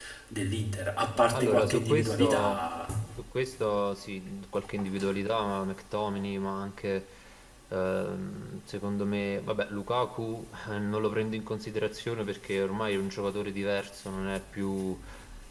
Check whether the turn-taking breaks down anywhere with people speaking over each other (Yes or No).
Yes